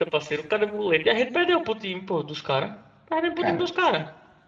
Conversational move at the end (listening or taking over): listening